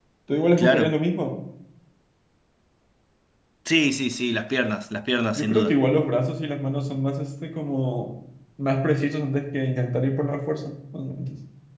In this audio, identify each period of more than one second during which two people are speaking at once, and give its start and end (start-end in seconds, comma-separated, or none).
none